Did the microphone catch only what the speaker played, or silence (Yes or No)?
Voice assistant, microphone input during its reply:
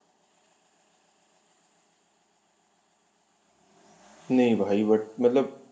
No